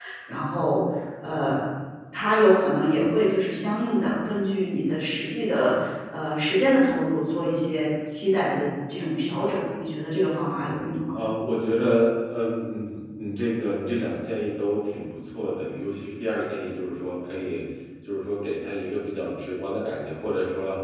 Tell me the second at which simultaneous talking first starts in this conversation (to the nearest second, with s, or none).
none